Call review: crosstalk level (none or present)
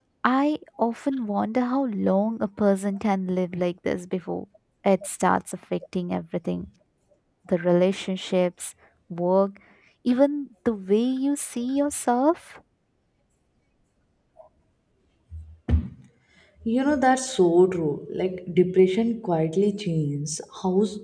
none